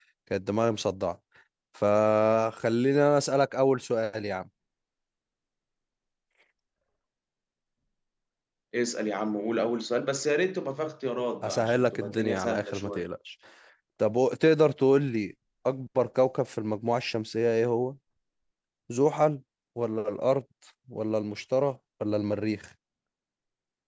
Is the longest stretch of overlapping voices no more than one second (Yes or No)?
No